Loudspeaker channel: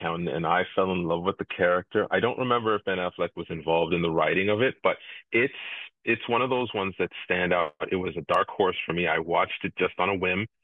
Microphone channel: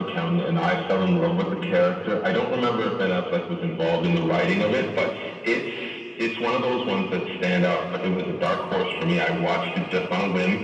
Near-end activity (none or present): none